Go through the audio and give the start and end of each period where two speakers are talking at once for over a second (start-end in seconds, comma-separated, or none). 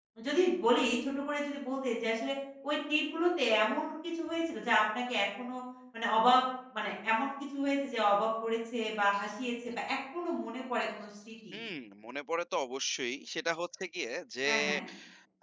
none